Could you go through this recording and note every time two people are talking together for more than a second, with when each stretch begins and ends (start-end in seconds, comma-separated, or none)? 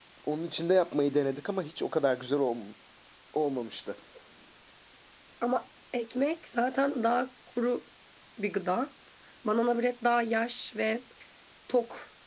none